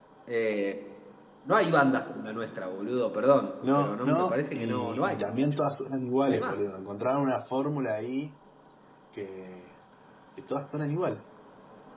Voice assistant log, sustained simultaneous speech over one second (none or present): present